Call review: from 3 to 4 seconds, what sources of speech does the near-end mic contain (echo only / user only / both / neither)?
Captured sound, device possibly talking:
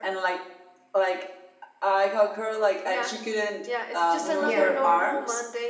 echo only